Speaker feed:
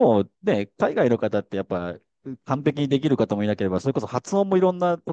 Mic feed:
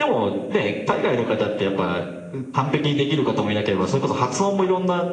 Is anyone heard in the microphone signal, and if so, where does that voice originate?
echo only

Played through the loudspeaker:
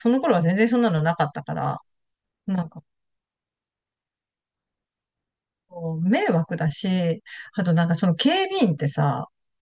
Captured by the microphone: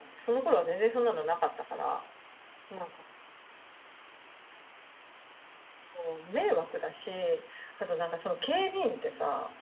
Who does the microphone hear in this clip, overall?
echo only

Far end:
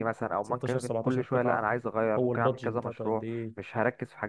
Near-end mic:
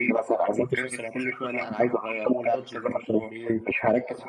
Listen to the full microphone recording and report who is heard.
echo only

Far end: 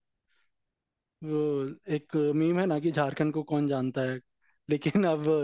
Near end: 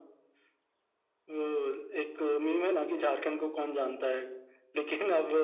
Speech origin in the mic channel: echo only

